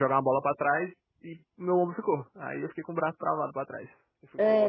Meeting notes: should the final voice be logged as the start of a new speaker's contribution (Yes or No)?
Yes